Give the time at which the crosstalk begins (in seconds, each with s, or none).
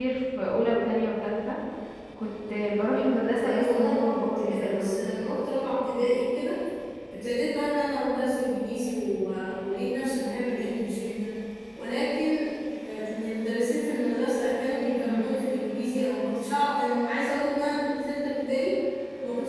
3.4 s